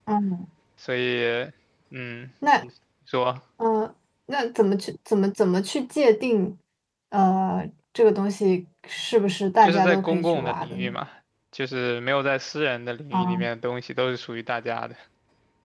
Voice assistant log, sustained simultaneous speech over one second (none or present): present